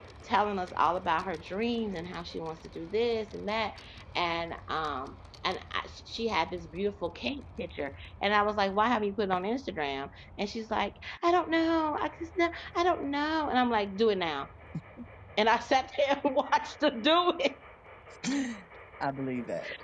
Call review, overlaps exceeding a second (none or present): none